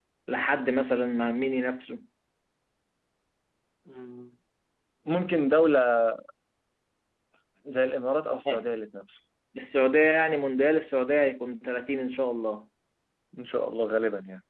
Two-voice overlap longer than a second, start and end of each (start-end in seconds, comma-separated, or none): none